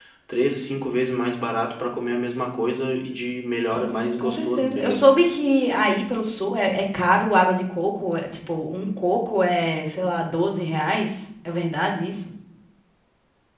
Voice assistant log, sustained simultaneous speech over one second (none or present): present